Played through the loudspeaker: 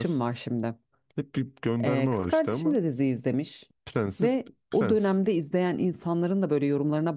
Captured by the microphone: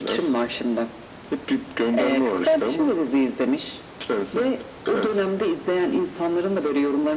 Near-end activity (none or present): none